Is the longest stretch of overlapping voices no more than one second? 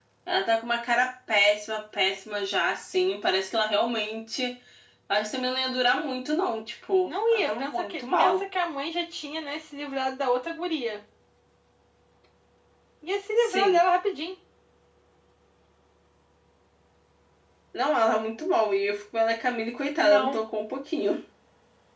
No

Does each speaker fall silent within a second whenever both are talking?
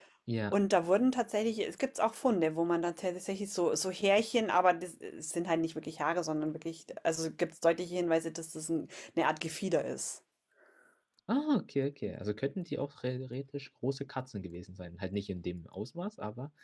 Yes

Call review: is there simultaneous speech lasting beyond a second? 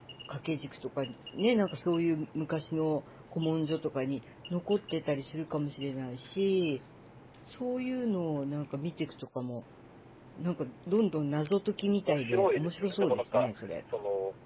Yes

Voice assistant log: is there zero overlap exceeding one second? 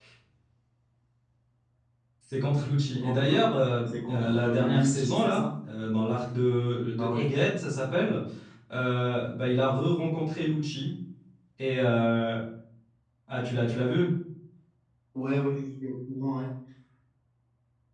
No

